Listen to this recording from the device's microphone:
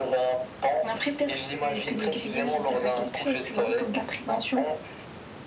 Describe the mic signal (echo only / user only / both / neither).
both